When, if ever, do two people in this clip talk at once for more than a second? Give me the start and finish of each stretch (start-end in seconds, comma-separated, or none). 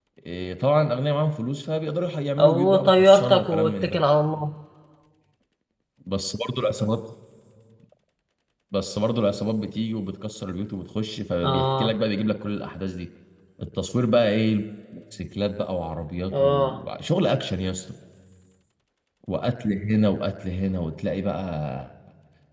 2.4-4.0